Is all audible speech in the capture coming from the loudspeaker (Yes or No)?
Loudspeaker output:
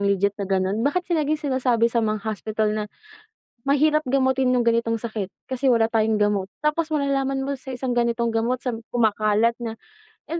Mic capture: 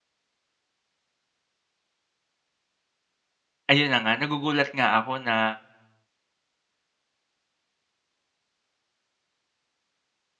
No